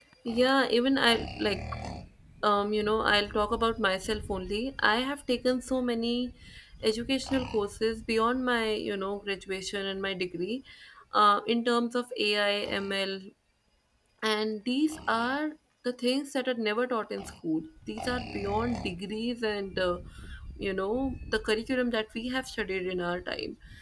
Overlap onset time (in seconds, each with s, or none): none